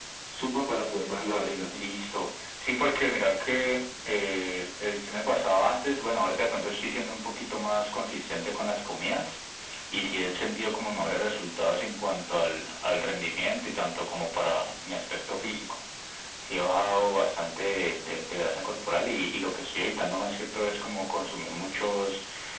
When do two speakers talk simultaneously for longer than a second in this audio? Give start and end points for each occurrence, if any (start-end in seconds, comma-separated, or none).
none